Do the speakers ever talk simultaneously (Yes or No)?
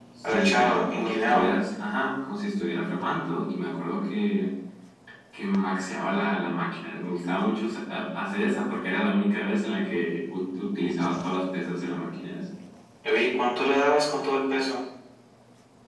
Yes